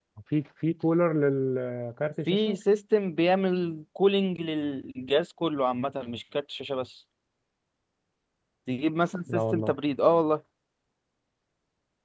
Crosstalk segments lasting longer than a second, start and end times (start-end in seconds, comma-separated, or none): none